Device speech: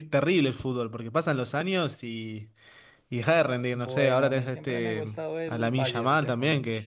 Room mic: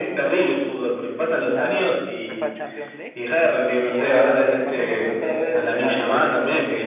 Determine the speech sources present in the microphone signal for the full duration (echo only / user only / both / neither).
both